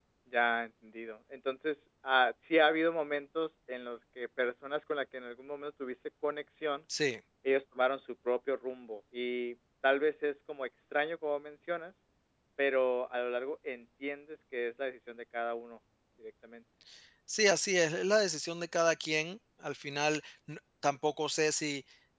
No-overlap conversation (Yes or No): Yes